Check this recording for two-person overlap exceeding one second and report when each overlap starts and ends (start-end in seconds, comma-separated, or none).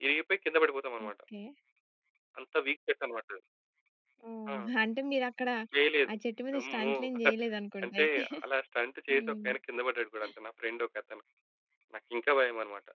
none